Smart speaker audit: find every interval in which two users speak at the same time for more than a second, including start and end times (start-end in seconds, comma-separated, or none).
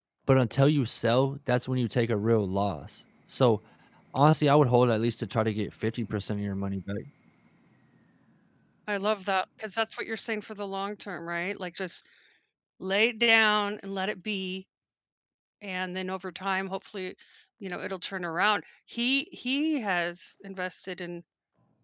none